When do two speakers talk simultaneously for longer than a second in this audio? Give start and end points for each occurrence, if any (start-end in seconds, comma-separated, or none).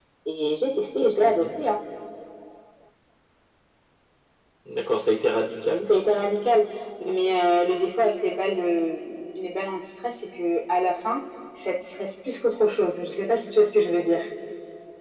none